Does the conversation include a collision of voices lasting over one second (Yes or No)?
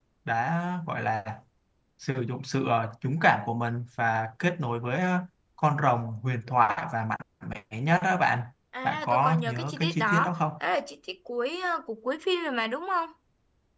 Yes